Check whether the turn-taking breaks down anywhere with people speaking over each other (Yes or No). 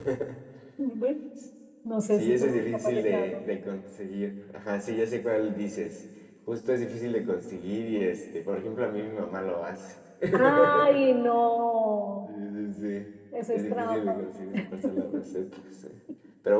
Yes